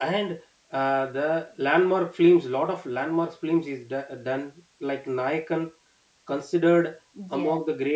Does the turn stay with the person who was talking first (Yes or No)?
Yes